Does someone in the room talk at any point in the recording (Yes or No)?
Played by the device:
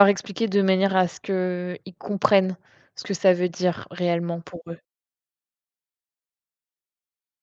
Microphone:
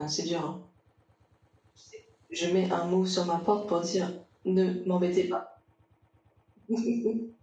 Yes